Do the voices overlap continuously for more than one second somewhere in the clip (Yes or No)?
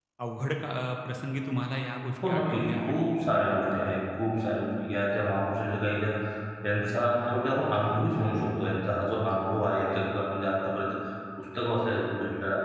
Yes